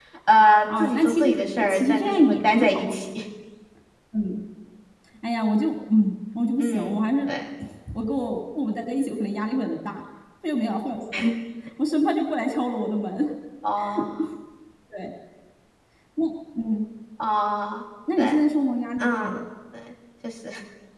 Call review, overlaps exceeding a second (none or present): present